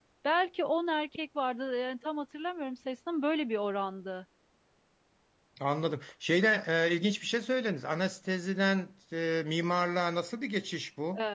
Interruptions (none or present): none